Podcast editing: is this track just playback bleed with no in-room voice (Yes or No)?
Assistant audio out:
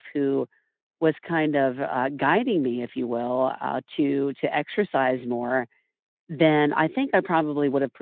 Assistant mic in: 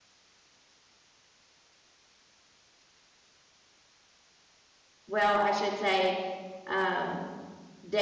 No